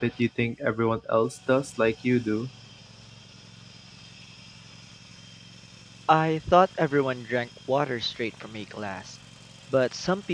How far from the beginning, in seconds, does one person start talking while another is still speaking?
none

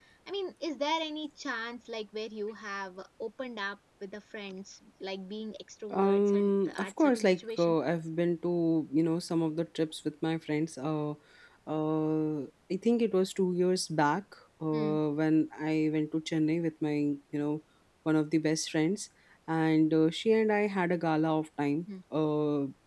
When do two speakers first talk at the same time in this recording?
6 s

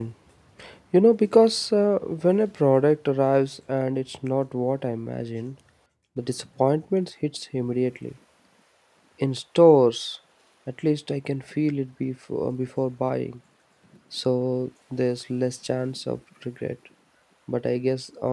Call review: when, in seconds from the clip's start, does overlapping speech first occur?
none

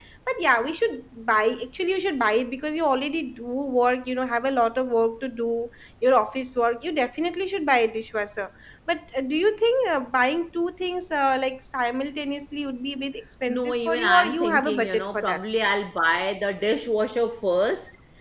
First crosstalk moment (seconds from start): 13 s

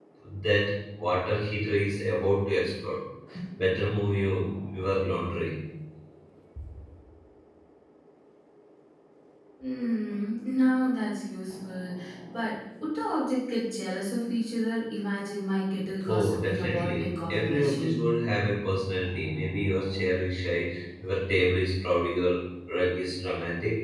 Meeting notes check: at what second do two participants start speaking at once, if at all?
16 s

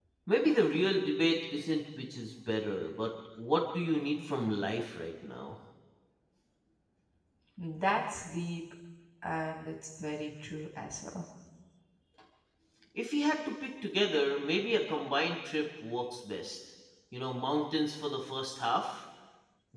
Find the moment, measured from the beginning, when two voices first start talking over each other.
none

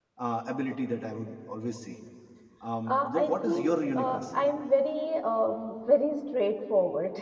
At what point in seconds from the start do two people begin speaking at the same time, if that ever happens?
3 s

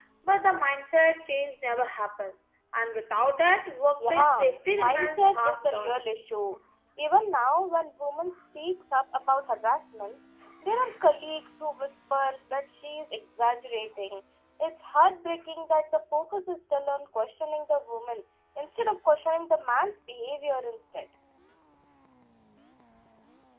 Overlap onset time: 4 s

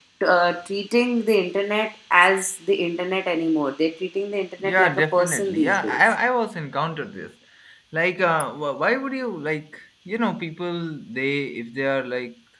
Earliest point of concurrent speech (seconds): 5 s

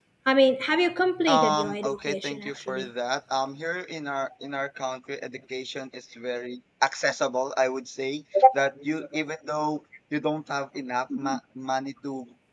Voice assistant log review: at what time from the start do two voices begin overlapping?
1 s

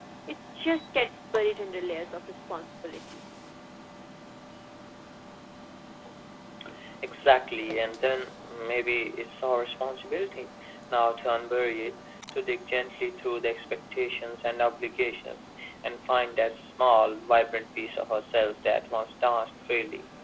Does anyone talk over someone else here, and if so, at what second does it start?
none

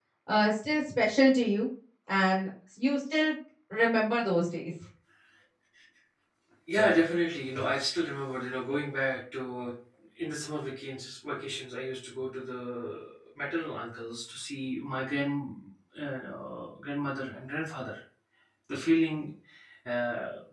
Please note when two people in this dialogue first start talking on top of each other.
none

